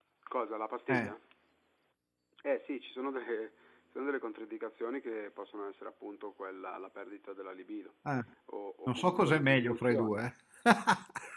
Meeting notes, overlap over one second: present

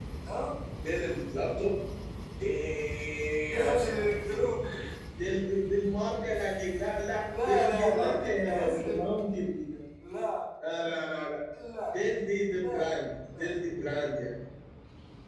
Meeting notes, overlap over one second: present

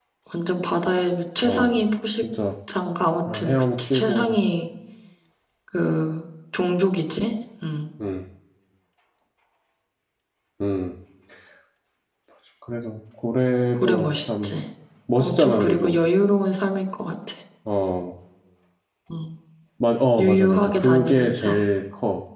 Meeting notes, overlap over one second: present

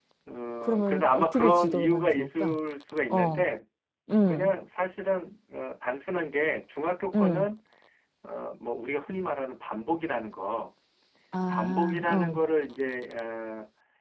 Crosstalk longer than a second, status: present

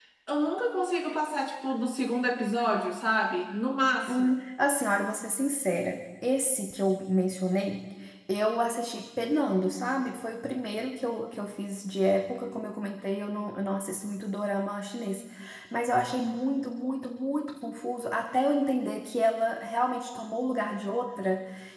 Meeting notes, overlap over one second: none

